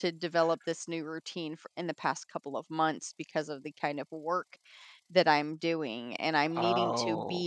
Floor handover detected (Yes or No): No